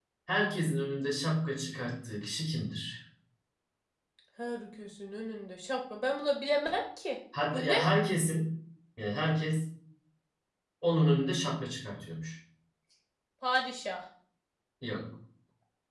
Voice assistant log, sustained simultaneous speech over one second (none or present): none